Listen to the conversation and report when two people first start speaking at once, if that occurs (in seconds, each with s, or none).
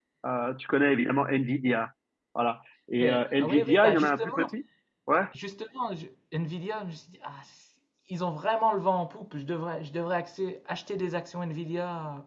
3.0 s